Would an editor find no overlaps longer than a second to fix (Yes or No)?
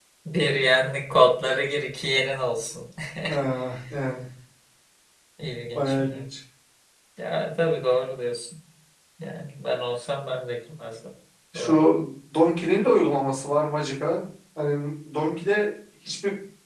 Yes